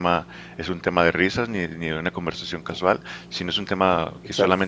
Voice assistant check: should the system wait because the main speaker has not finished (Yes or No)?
Yes